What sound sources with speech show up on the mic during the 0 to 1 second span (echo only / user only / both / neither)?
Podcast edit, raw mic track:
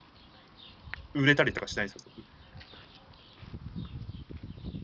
neither